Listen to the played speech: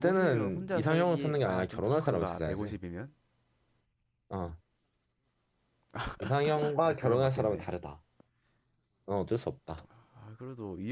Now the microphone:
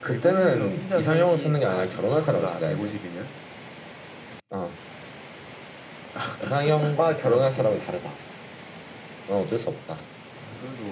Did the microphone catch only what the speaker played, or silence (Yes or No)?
Yes